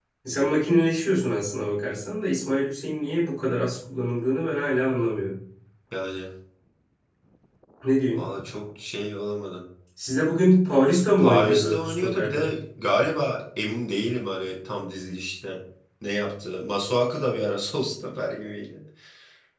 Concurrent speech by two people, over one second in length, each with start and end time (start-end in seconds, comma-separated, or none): 11.2-12.5